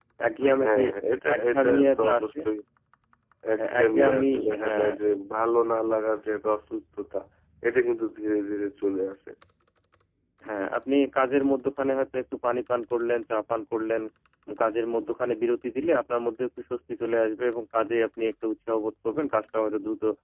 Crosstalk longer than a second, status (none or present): present